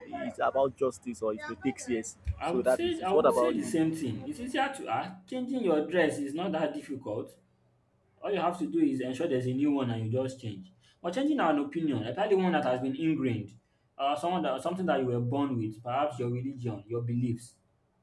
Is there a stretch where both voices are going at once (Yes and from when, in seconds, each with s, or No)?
Yes, from 2.4 s